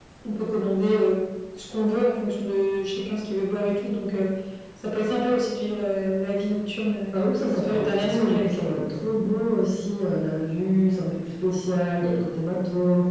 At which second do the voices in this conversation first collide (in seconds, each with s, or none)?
7.1 s